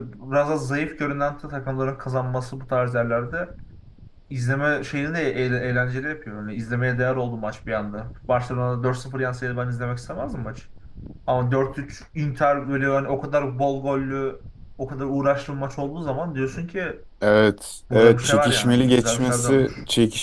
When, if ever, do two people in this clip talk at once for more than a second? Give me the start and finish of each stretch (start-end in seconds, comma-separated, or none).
17.9-19.7